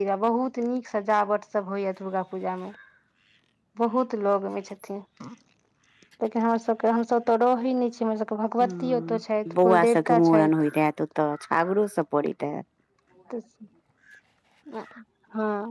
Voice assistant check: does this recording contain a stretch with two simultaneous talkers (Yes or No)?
Yes